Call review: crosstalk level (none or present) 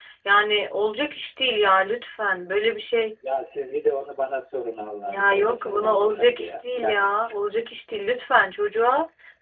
present